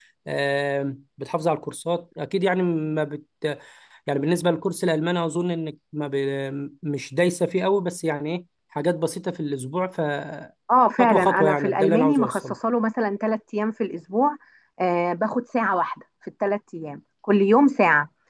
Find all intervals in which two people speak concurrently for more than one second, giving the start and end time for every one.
11.0-12.4

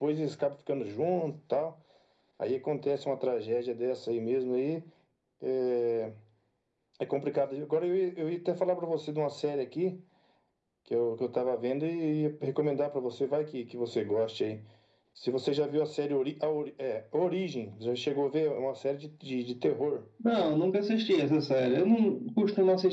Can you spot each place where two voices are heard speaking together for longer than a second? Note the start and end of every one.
none

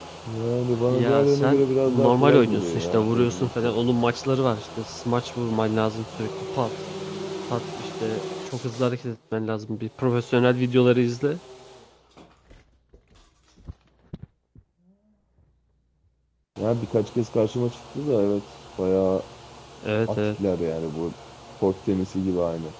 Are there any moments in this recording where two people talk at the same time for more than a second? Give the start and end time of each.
0.9-3.7

